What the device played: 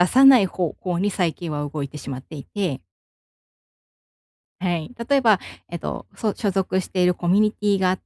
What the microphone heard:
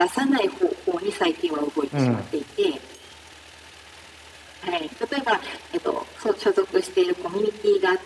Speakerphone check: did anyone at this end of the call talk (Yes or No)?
Yes